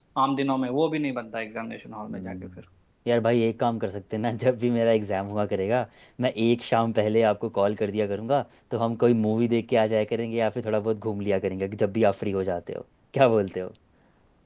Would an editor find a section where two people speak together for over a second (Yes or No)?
No